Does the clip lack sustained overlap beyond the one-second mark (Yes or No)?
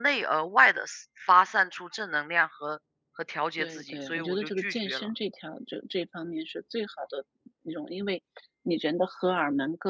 No